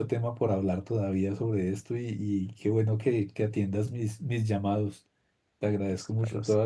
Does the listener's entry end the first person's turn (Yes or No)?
No